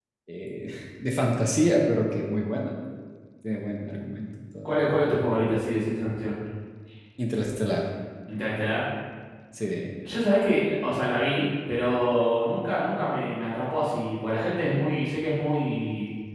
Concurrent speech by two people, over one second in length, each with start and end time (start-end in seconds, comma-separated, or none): none